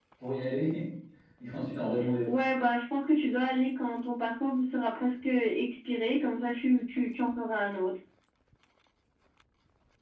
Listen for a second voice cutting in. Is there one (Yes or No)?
No